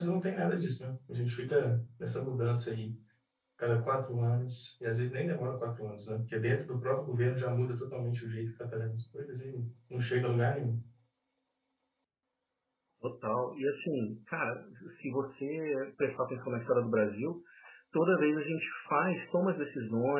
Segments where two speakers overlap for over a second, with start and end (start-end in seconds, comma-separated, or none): none